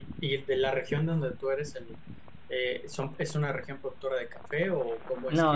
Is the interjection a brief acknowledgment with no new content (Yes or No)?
No